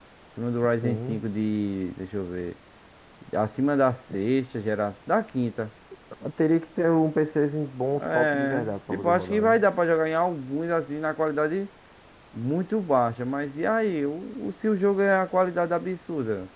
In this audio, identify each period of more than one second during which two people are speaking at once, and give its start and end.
8.0-9.6

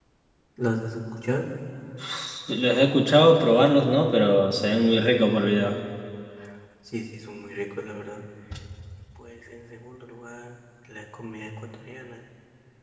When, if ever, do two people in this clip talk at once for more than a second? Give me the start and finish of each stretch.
none

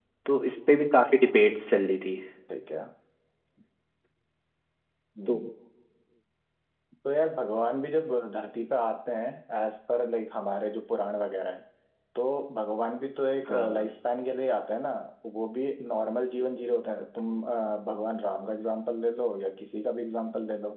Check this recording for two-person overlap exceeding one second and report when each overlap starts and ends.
none

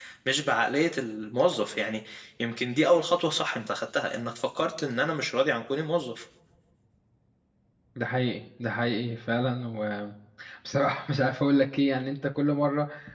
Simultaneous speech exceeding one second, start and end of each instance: none

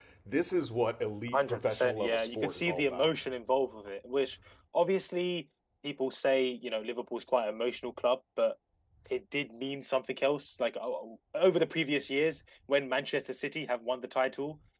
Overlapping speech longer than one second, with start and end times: 1.3-3.1

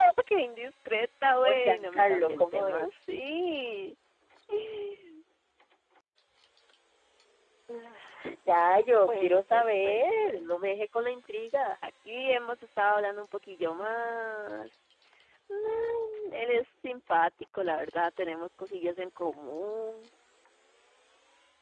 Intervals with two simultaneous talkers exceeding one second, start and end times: 1.4-2.9, 9.0-10.5

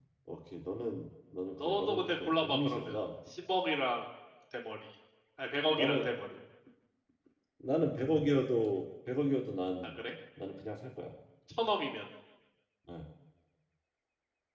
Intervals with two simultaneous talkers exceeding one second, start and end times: 1.6-3.0

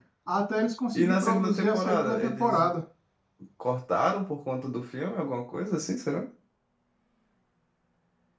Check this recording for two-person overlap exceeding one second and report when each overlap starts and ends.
0.9-2.6

